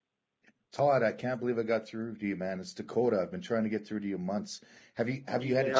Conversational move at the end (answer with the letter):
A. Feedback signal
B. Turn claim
B